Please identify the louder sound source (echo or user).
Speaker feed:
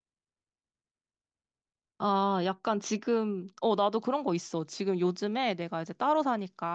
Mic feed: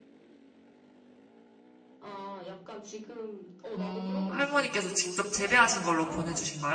user